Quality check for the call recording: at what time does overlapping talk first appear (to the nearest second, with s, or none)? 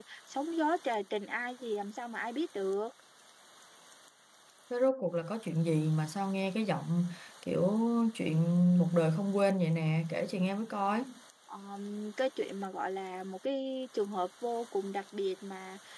none